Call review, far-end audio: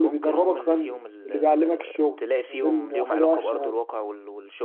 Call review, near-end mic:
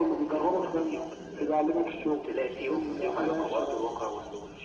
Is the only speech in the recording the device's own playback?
Yes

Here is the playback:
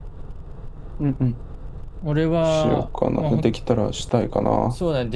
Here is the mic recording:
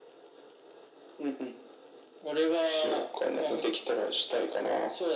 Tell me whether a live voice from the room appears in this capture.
No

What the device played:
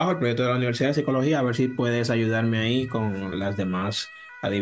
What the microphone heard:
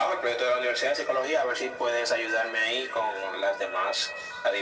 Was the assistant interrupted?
No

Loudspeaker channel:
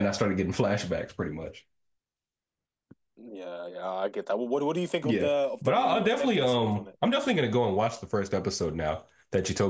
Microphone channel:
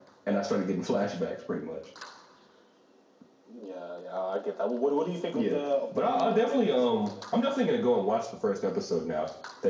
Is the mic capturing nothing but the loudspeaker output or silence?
Yes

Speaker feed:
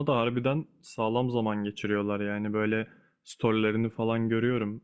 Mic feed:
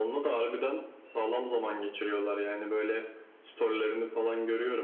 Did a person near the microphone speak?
No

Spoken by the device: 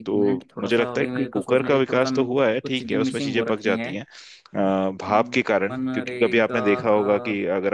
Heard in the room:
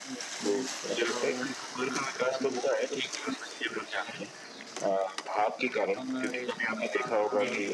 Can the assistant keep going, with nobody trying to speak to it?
No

